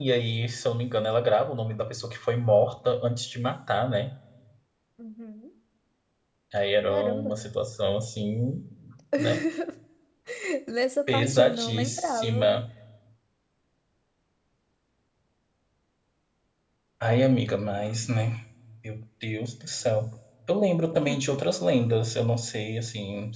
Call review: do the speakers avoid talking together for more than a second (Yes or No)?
No